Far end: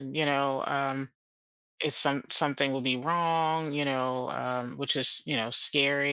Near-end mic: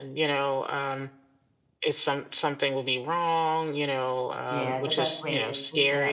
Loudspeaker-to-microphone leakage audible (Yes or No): Yes